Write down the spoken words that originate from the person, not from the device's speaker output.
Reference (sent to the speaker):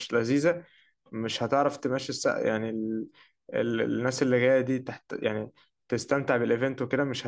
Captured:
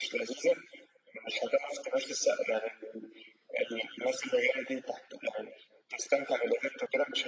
none

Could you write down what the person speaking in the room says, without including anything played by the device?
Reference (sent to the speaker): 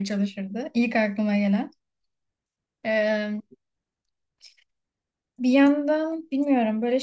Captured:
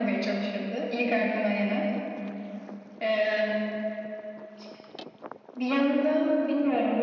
none

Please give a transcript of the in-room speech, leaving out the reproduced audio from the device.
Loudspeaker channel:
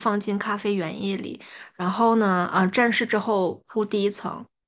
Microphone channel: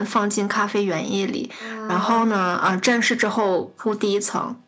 嗯，

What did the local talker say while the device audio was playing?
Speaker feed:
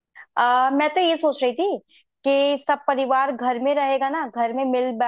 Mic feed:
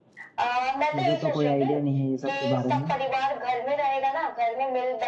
मुझे तो कोई आइडिया नहीं है ये सब के बारे में

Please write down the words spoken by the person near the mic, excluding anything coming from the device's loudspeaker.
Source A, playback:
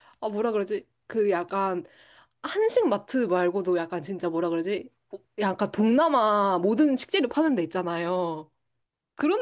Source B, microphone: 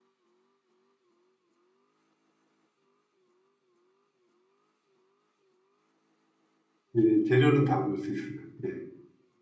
예, 재료는 다 볼 수 있어요. 예.

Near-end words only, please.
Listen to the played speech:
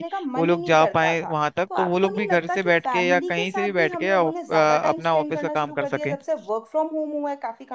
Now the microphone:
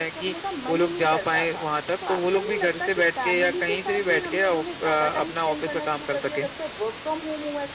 none

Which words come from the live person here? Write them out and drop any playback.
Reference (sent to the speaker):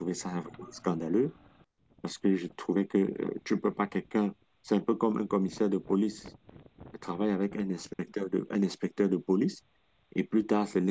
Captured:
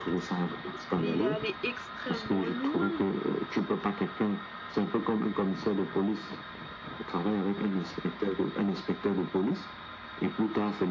Mais il est allé extrêmement loin.

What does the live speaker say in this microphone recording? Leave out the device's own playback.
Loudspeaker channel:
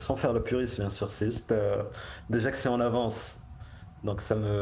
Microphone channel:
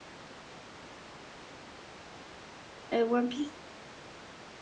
euh, One Piece.

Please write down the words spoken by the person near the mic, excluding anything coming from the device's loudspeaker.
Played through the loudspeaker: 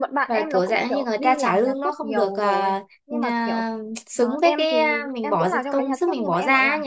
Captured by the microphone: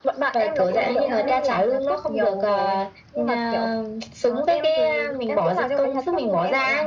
chị có nghĩ thế

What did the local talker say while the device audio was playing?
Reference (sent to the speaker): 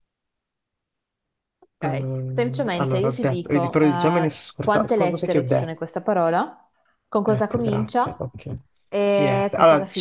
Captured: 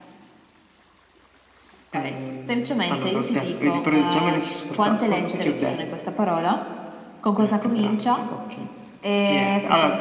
none

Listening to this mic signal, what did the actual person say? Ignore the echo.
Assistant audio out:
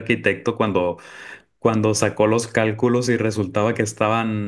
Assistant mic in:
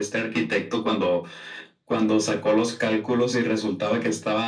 none

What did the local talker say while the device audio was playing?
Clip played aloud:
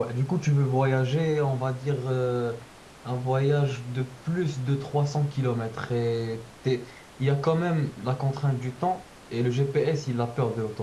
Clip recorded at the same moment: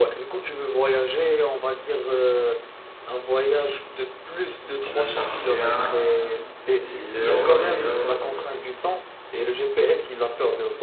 et je le charge bien et il est heureux, il est heureux.

